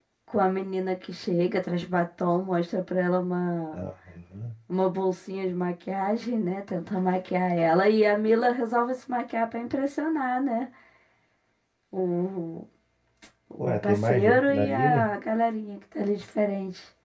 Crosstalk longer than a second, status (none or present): present